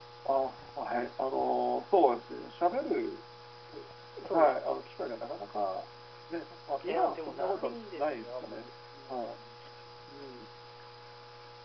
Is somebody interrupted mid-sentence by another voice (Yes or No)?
Yes